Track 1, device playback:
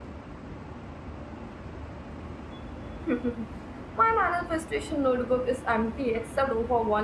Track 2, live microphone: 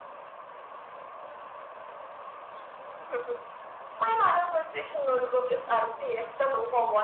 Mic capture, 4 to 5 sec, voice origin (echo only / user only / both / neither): echo only